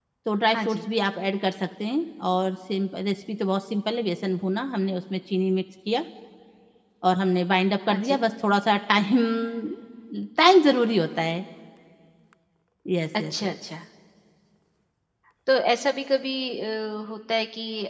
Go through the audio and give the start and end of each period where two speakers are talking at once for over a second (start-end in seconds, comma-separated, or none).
none